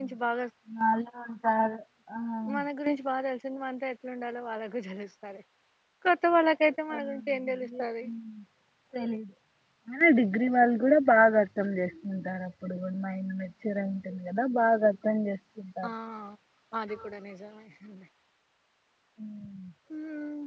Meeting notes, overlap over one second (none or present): none